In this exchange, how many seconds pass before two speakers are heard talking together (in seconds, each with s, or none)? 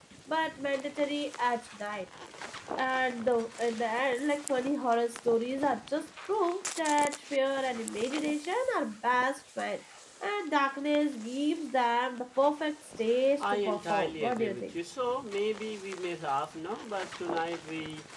13.4 s